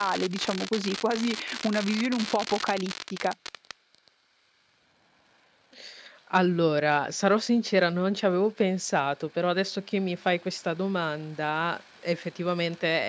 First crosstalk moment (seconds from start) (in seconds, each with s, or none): none